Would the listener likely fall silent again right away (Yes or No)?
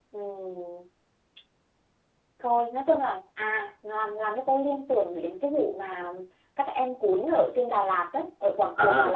No